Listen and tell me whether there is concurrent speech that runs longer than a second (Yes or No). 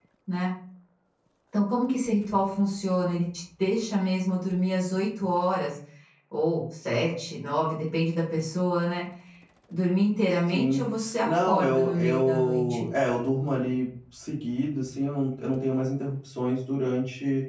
Yes